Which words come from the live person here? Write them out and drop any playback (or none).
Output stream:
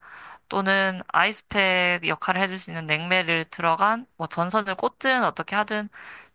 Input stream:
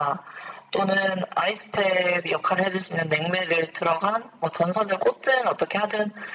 none